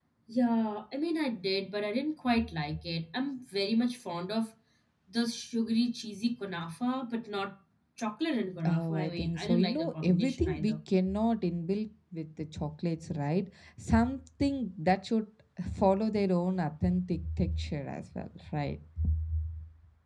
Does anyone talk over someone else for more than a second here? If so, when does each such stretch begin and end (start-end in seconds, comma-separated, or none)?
8.6-10.7